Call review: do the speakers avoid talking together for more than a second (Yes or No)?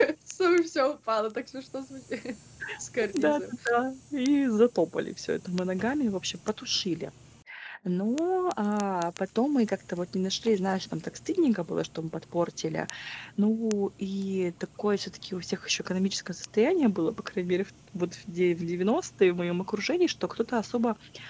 Yes